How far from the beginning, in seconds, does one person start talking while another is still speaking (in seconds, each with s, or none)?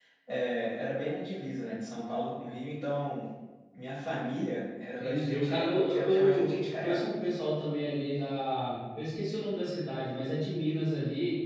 5.0 s